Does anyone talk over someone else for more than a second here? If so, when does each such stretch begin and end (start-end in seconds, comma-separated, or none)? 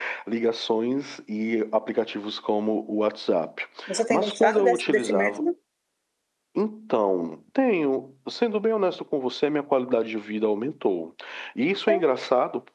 4.1-5.4